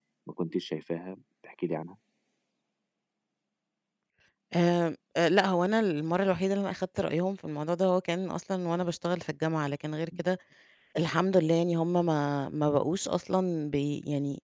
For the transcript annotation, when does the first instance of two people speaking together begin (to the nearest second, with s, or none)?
none